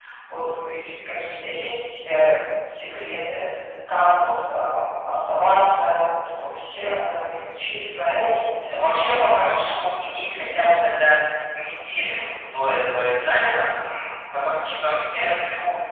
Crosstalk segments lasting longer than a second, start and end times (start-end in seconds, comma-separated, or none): 7.9-9.1